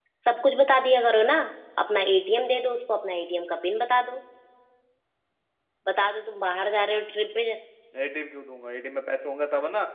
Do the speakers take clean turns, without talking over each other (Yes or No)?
Yes